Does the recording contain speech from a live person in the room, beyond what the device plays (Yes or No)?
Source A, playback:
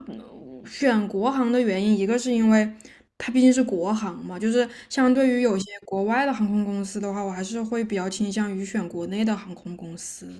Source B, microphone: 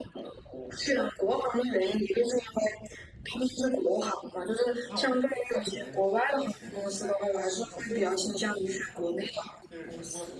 Yes